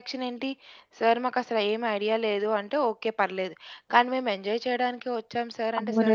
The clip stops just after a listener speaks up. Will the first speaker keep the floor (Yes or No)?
No